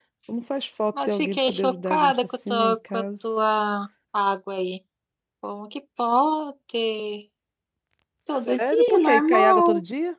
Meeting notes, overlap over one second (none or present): present